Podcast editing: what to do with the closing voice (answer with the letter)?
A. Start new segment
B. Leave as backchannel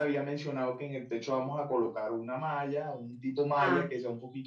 B